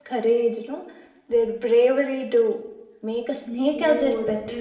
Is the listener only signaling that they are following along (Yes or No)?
No